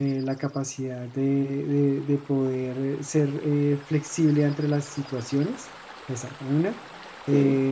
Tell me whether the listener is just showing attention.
Yes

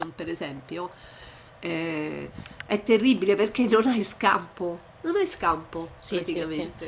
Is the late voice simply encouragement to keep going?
No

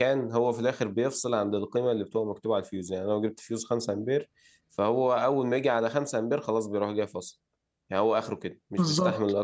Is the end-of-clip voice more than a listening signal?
Yes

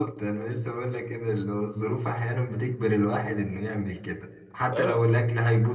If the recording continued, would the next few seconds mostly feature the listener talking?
No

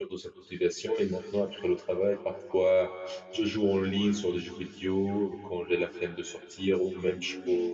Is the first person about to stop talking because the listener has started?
No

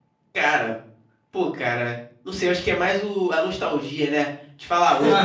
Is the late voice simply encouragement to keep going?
Yes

